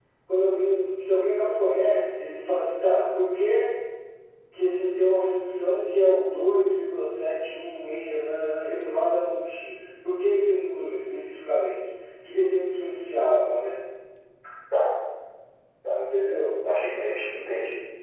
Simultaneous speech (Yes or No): No